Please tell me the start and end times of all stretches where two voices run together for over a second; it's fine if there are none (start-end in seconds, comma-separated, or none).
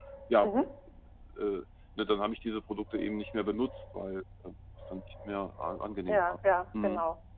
none